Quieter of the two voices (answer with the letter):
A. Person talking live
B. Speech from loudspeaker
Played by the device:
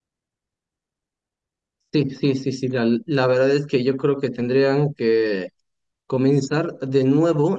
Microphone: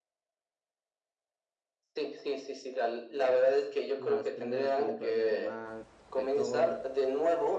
A